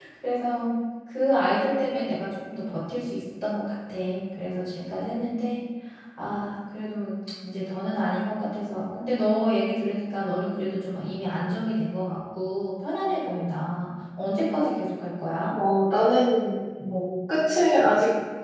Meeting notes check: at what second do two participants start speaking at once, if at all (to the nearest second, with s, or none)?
none